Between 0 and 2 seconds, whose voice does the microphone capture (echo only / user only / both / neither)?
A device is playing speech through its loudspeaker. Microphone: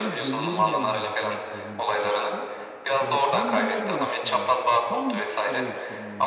both